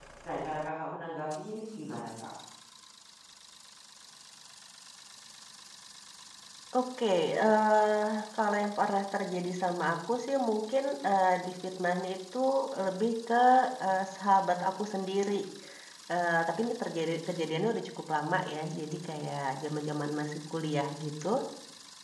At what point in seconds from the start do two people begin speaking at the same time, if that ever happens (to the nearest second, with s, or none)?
none